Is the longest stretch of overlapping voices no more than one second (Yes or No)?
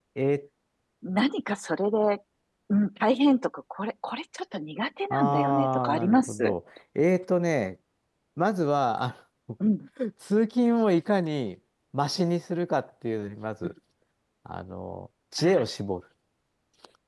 No